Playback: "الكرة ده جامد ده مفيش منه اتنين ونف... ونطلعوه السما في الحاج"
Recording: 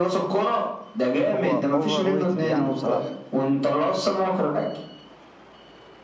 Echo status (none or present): present